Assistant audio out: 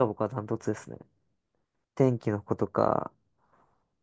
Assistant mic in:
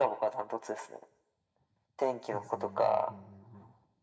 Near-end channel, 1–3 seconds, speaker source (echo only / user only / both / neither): both